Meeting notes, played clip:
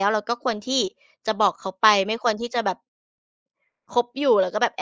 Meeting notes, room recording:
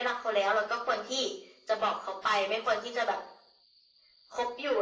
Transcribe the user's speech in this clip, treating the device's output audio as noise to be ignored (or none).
none